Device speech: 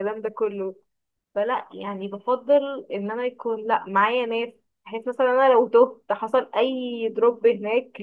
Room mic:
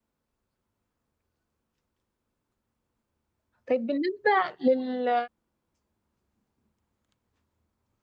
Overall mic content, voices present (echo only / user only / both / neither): user only